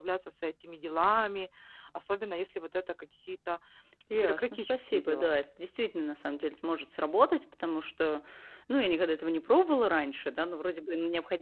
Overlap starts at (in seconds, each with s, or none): 4.1 s